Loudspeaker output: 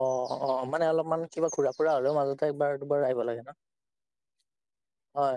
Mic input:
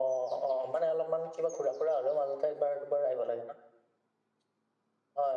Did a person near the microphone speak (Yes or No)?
No